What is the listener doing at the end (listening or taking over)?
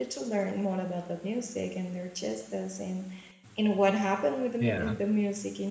listening